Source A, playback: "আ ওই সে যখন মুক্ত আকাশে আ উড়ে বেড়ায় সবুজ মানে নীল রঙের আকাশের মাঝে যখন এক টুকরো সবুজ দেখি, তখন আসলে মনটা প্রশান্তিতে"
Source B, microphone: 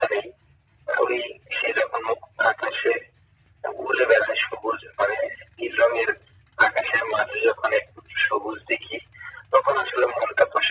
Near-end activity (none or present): none